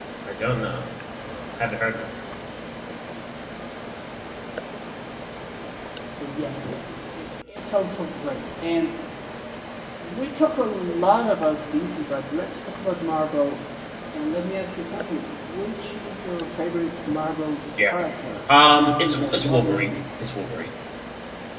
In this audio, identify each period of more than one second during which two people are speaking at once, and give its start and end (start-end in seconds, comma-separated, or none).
18.5-19.9